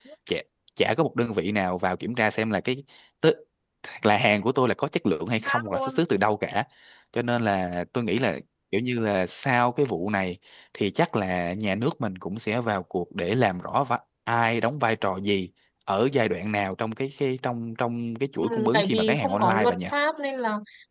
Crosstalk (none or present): present